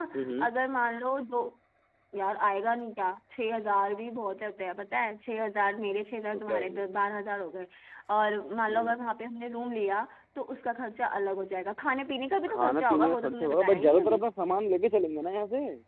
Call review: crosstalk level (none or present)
present